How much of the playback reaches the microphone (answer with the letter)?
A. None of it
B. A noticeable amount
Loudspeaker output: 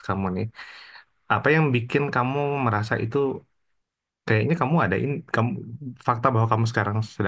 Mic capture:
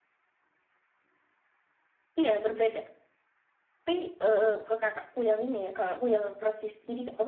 A